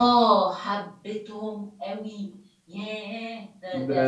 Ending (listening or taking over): taking over